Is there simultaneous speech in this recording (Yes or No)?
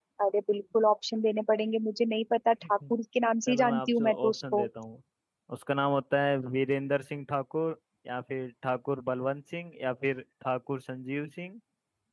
Yes